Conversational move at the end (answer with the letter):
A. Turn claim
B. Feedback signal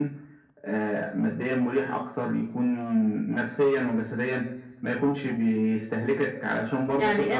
A